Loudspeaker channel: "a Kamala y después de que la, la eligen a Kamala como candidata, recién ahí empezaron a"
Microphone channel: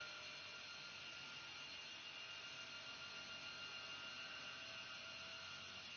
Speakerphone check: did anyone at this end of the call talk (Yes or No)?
No